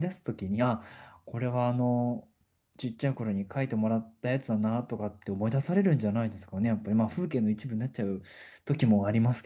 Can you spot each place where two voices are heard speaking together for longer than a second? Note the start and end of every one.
none

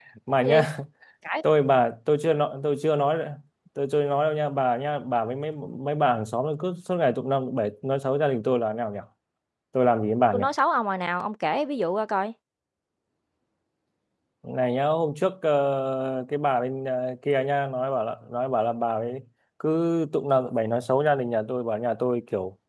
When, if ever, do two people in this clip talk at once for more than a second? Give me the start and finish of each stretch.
none

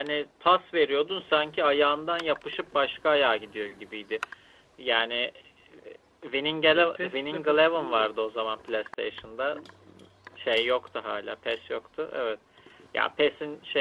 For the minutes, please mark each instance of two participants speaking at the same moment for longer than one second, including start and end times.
6.7-8.1

